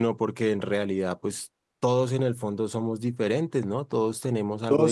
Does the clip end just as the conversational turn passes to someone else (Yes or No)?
Yes